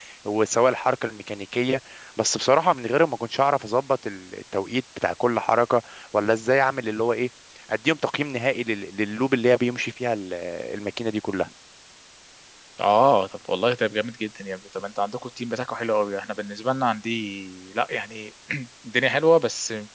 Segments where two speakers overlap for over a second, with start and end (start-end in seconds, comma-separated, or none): none